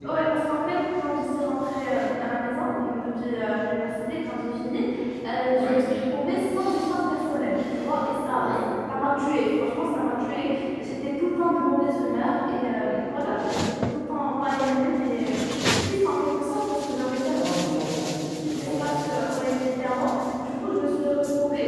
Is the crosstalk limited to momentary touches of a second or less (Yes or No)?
Yes